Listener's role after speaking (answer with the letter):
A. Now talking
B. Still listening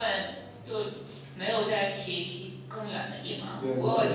A